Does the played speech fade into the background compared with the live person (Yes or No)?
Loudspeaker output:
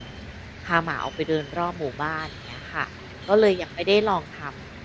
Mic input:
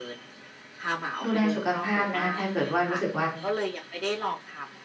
Yes